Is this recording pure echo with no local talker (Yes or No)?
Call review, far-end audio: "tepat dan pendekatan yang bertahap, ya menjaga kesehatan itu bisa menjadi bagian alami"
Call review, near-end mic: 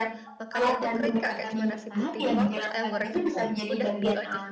No